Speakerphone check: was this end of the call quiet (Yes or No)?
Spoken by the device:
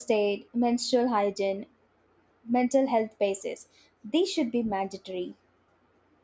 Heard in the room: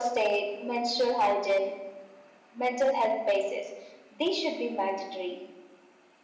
Yes